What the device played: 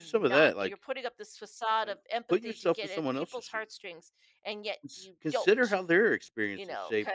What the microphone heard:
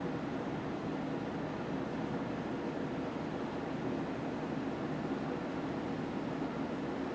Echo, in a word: none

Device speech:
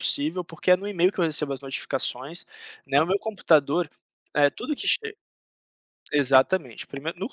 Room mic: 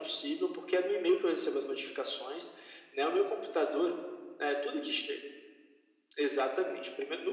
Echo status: present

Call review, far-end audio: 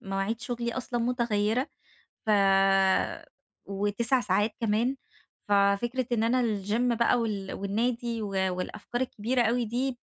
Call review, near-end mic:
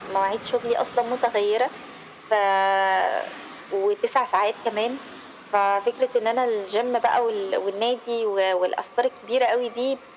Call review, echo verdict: present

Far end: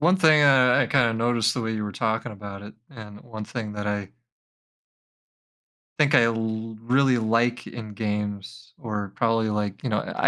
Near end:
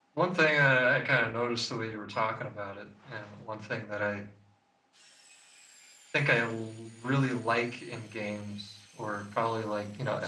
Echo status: present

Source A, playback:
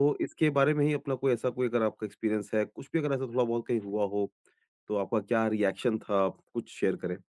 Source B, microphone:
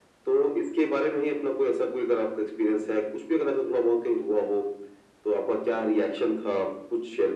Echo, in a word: present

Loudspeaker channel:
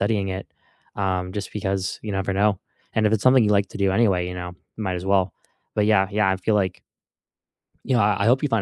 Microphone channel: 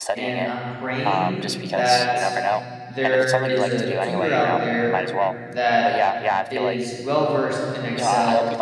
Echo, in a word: present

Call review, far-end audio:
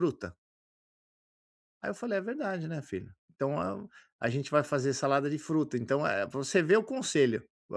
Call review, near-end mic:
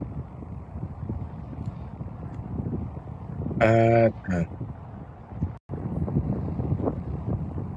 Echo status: none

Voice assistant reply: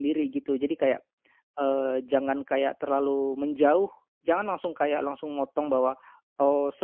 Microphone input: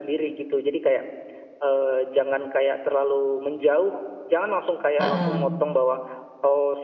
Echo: present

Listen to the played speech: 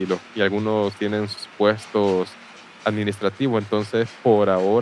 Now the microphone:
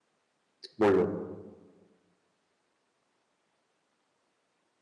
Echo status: none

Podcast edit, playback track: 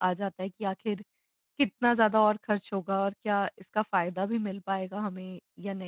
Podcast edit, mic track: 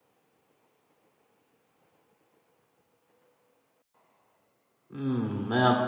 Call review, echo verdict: none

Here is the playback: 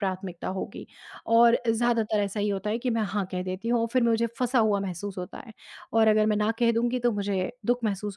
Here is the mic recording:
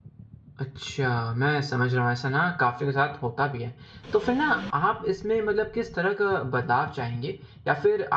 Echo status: none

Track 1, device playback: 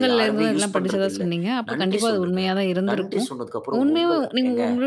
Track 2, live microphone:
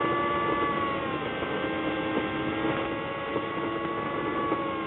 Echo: none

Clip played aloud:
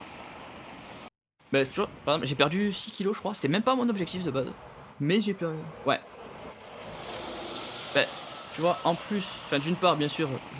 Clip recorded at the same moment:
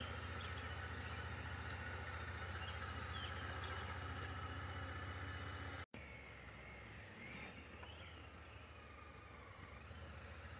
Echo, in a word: none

